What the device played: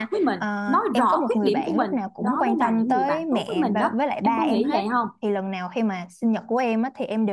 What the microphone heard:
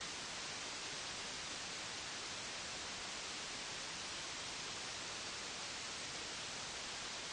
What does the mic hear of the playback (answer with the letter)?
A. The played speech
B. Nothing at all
B